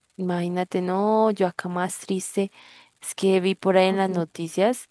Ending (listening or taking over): listening